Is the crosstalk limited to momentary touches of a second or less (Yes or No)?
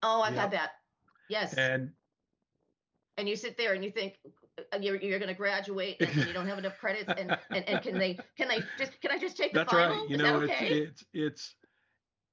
No